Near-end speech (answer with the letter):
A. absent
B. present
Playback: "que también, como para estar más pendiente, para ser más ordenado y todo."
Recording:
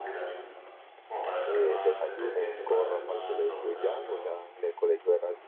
B